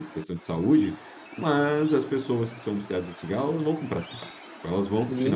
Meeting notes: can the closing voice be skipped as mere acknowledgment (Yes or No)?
No